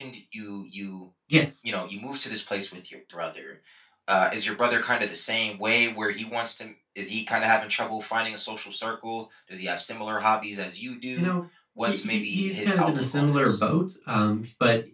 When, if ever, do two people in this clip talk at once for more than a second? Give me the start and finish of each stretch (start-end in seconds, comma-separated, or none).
11.9-13.6